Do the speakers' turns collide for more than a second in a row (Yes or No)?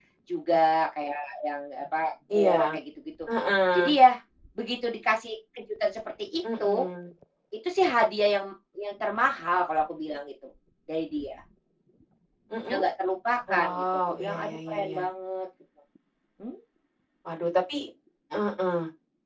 Yes